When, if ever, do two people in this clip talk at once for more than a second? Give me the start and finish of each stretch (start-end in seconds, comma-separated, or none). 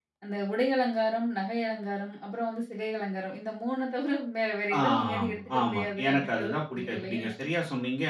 4.8-7.2